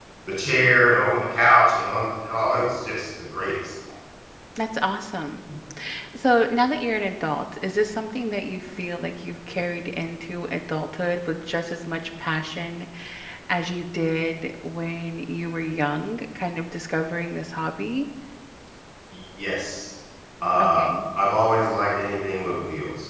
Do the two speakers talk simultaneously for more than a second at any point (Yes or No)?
No